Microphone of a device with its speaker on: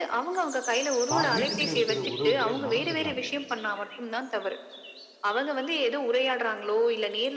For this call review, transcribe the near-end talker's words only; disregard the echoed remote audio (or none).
தான் வீட்டுக்குள்ள இருக்கிற உறவுகளே மறந்துடுறாங்க.